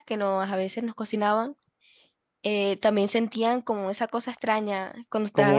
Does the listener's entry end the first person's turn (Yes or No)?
Yes